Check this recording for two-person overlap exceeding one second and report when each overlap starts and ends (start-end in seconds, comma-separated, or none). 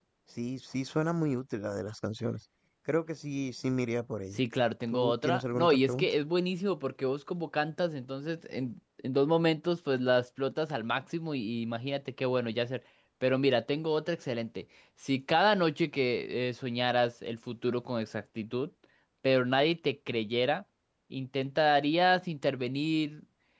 4.9-6.1